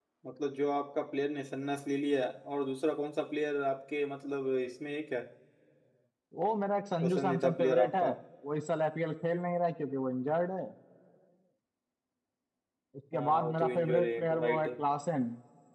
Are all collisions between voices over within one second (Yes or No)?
No